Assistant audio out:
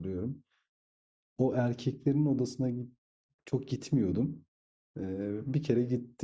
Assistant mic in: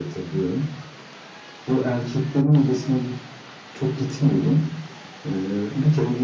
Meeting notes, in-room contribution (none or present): none